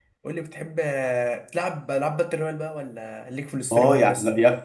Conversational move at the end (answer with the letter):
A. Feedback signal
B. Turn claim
B